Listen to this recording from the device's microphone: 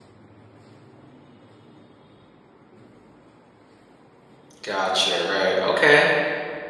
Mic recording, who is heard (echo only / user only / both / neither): user only